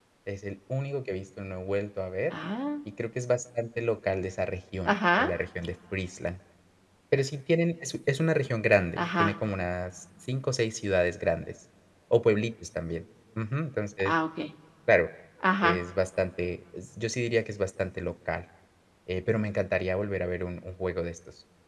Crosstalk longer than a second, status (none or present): none